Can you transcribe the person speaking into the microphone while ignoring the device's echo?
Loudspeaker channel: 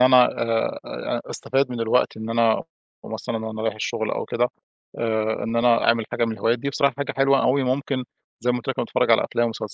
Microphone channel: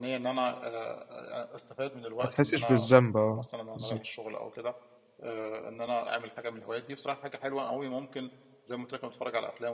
ما تحسّش بالذنب، آه، بالضبط.

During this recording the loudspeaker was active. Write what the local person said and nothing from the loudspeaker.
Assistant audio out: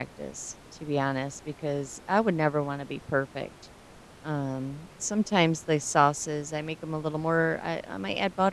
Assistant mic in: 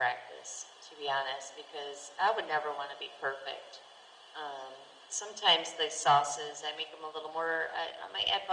none

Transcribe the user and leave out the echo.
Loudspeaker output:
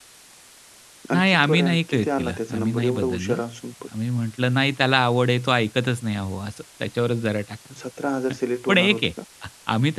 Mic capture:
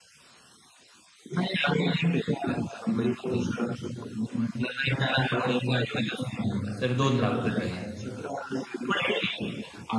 तर ₹2,00,000

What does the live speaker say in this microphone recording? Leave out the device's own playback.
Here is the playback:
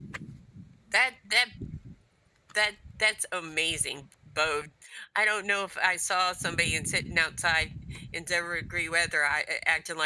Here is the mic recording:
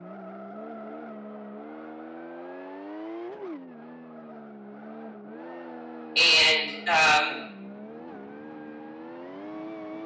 and um,

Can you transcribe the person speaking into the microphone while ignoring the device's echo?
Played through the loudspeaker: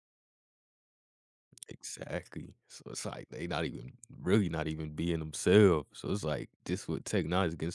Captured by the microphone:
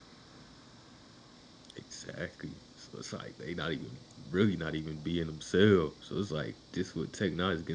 none

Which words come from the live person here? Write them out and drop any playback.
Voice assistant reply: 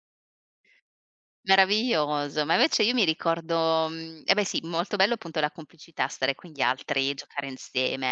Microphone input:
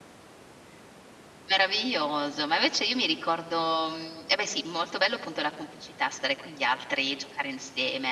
none

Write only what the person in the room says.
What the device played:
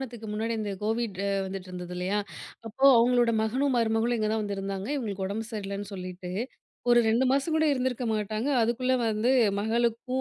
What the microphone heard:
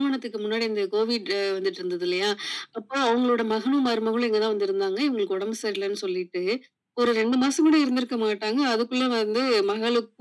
none

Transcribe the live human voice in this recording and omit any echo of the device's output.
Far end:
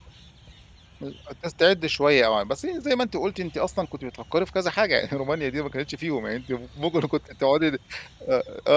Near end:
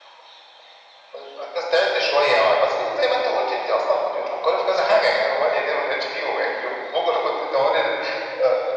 none

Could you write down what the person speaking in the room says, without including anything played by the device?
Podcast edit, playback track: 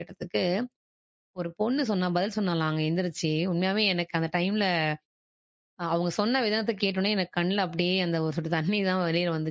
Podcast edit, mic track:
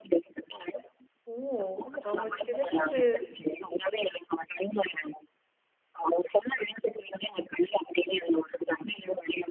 ஓ! அப்ப அவங்க கிட்டத்தட்ட ஒரு

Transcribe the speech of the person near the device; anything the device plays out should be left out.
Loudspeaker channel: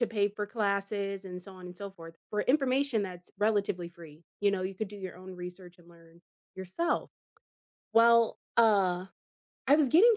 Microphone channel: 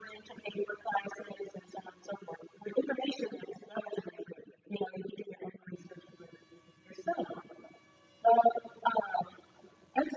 none

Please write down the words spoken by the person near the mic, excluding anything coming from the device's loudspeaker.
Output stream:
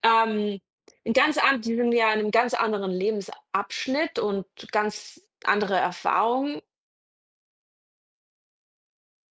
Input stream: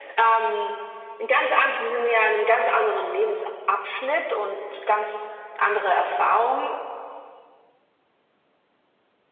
none

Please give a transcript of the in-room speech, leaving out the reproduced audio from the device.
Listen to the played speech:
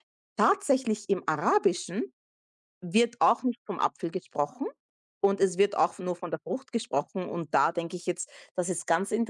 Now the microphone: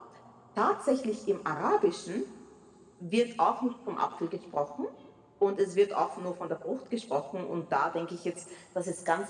none

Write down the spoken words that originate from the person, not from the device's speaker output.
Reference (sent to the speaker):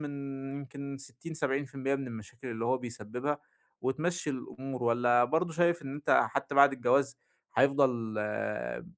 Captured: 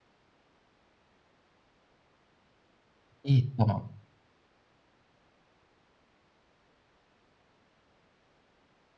أكيد طبعًا،

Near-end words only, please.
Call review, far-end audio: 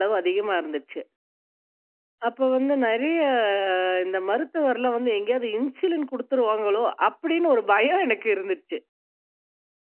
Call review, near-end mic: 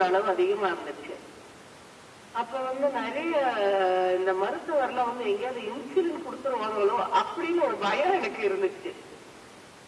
none

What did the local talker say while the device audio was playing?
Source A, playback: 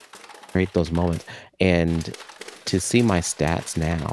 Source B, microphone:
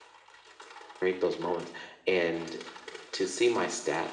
none

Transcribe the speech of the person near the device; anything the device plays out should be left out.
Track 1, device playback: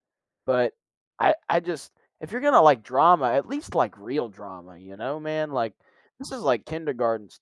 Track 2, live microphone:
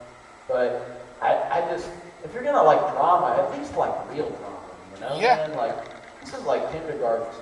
Yeah, n

